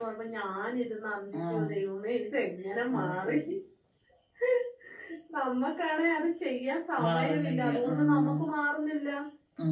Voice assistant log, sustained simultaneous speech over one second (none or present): present